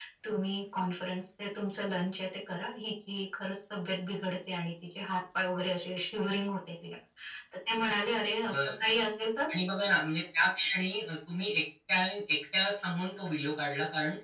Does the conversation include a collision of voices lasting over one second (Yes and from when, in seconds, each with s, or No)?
No